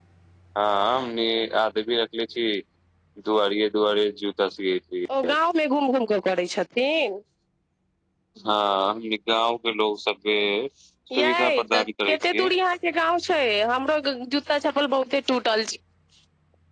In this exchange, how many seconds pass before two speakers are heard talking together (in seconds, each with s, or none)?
11.2 s